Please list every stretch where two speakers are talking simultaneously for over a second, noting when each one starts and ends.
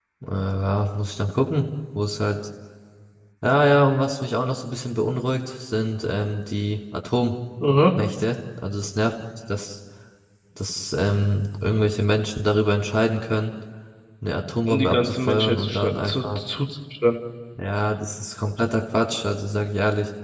14.7-16.4

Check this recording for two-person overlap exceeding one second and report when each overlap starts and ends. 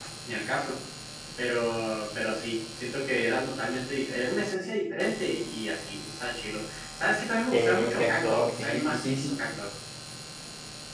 7.5-9.3

